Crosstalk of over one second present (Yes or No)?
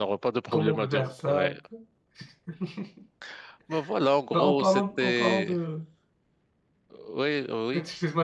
Yes